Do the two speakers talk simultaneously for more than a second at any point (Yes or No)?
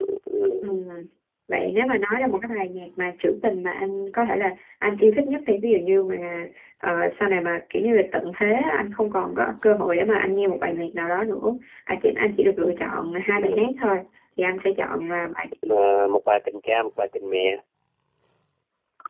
No